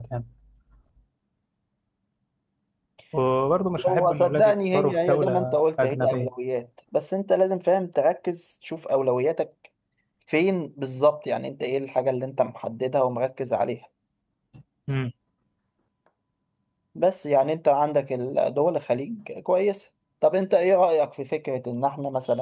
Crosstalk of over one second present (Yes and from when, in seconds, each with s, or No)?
Yes, from 3.9 s